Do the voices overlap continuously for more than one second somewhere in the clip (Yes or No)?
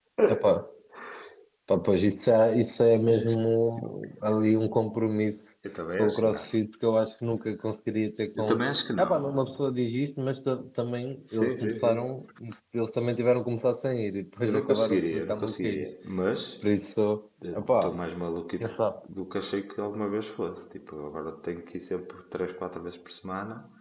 Yes